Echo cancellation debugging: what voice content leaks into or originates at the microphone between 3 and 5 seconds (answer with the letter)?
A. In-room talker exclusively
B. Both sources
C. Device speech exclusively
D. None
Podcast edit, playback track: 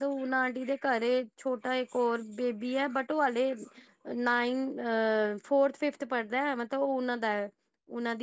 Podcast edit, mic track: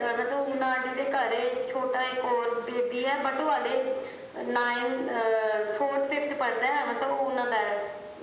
C